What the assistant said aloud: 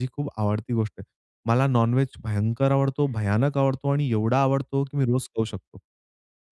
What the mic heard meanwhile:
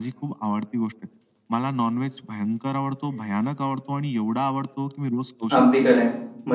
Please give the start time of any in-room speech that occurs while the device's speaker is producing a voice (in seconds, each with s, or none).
5.5 s